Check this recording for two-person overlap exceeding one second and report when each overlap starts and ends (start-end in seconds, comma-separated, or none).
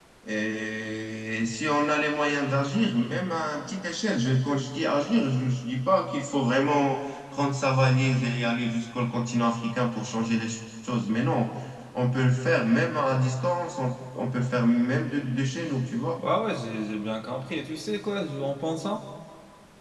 none